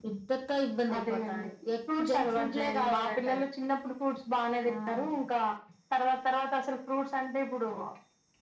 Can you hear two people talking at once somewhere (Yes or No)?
Yes